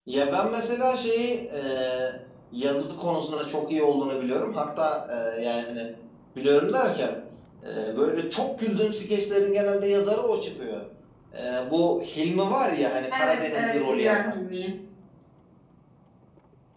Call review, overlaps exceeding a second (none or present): present